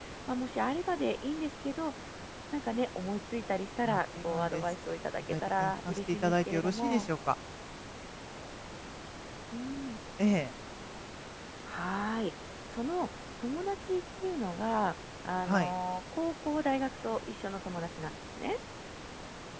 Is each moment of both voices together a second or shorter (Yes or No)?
No